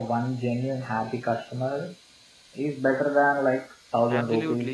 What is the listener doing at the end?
taking over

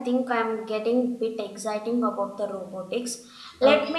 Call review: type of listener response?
listening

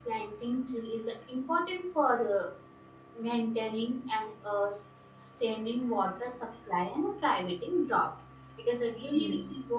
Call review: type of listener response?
listening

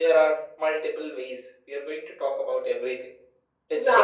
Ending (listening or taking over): taking over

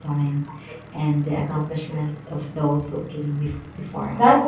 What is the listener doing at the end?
taking over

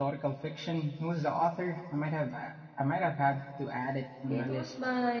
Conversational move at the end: taking over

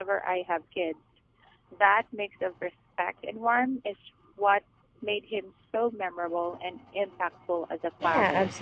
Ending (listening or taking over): taking over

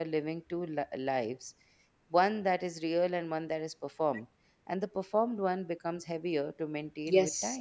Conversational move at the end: taking over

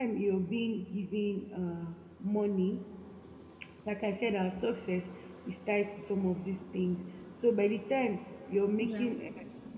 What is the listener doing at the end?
listening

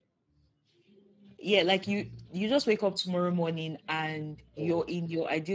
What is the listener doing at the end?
listening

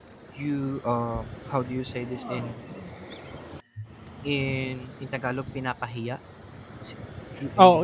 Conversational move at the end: taking over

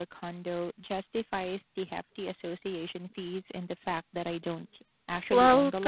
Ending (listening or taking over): taking over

